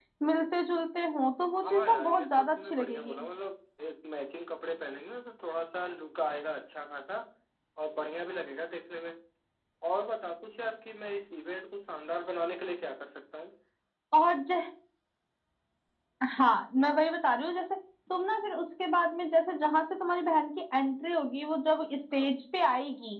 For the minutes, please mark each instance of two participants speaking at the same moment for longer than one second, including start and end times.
1.6-3.2

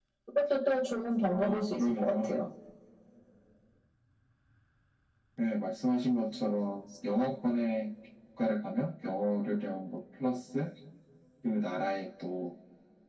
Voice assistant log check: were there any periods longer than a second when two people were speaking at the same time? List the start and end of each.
1.2-2.5

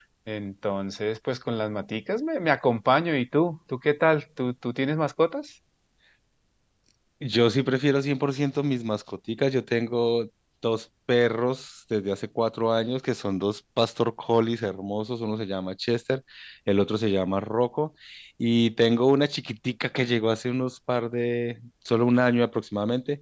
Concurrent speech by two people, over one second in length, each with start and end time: none

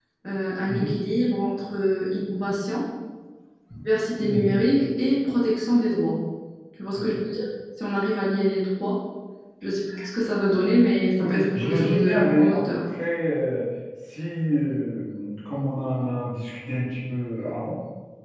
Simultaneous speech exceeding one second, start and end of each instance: 11.2-12.6

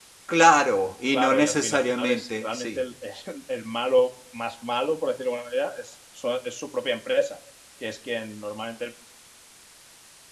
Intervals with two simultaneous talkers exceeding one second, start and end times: 1.1-2.8

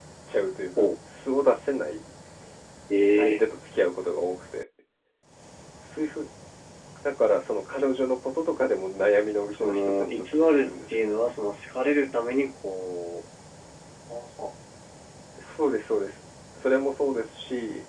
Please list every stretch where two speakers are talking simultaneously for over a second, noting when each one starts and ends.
9.5-11.0

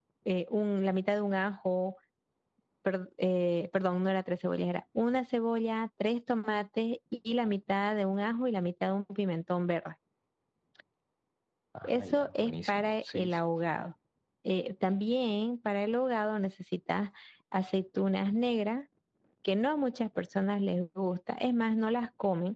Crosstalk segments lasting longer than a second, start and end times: 11.8-13.4

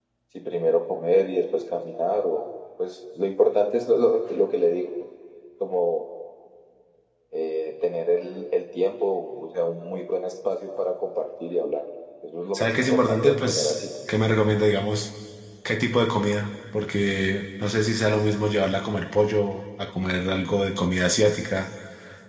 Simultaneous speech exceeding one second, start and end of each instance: 12.5-13.8

